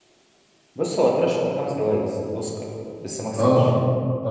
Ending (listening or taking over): taking over